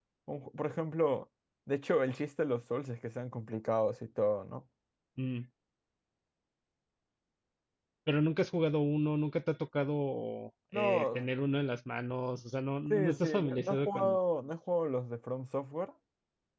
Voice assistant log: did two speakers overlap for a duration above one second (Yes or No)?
Yes